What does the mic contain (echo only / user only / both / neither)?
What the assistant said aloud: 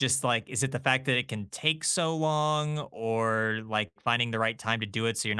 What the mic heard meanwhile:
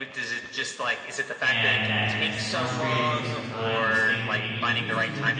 both